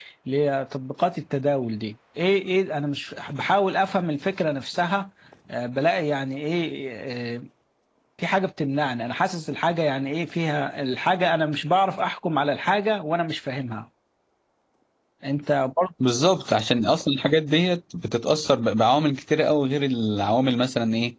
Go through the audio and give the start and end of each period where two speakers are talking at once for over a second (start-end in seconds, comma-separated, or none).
none